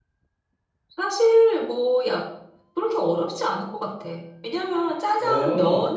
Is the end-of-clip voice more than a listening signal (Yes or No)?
No